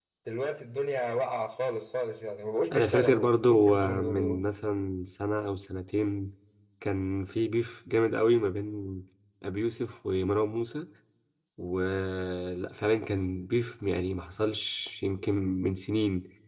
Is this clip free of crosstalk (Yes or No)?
No